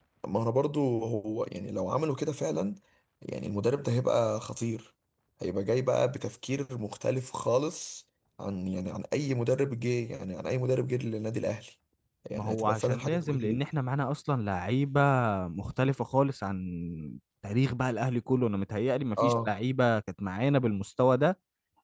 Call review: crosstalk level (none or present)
present